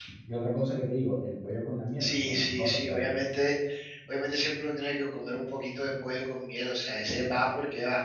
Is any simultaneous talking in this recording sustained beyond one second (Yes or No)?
Yes